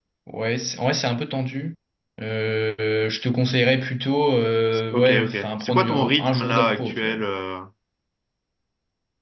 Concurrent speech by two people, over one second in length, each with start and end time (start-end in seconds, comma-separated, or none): 4.9-7.2